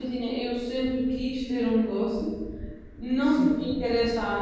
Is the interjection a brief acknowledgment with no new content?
Yes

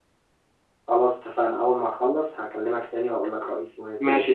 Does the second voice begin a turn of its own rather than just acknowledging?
Yes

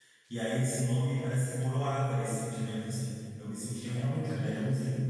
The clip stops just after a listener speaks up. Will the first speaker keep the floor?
Yes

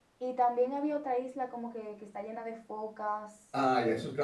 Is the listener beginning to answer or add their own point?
Yes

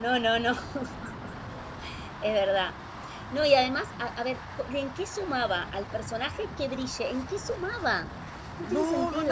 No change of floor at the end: No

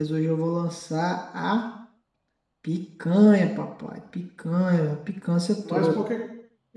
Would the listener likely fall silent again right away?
No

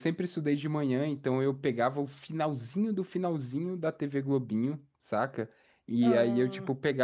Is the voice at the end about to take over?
No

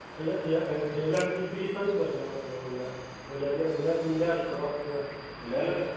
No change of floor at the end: Yes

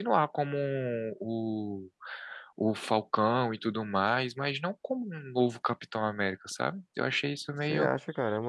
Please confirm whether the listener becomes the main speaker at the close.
Yes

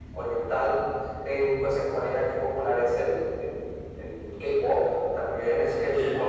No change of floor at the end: No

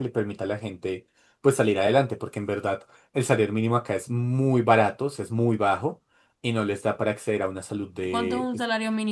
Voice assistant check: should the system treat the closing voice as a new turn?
Yes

